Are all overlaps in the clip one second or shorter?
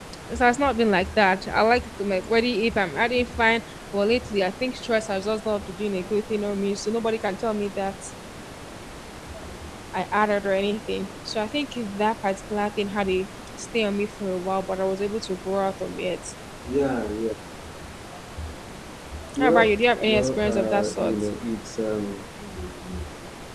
No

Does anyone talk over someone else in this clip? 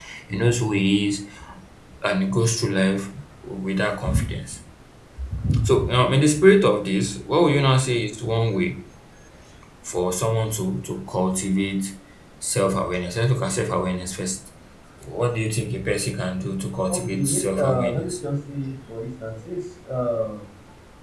Yes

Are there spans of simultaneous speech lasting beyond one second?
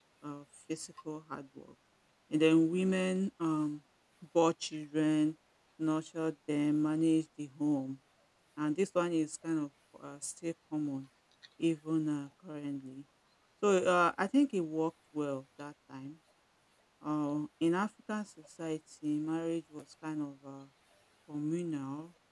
No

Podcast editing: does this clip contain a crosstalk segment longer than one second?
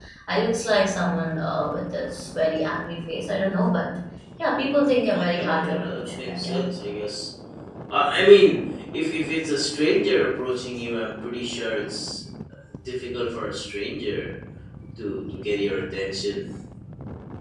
Yes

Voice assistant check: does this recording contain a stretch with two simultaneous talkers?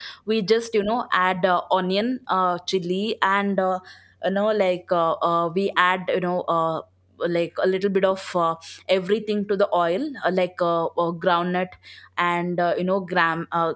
No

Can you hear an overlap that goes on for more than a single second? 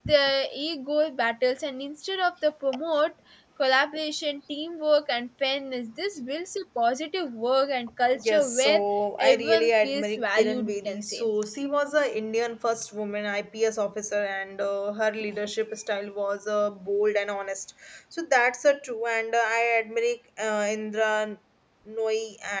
Yes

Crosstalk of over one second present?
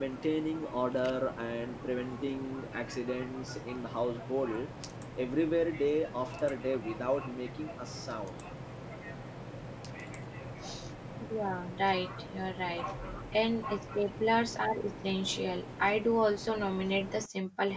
No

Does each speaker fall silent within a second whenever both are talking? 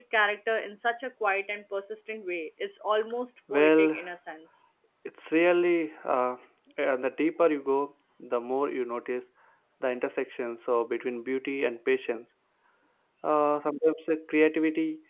Yes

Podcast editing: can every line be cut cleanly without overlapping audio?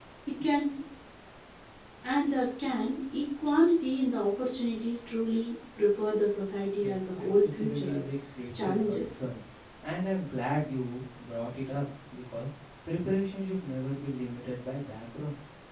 No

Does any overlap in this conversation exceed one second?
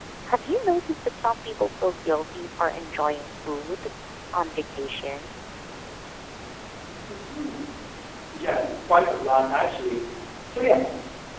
No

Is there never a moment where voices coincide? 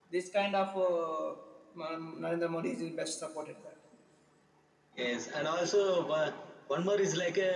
Yes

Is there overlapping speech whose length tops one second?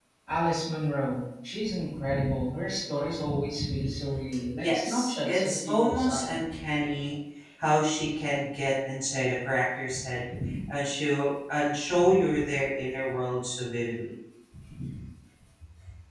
Yes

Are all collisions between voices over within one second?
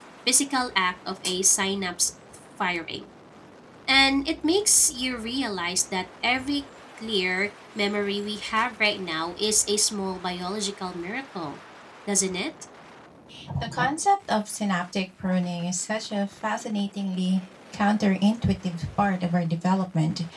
Yes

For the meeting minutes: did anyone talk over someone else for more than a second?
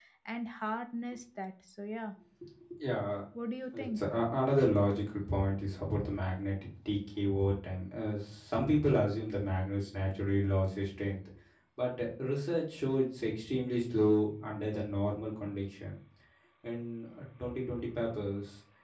No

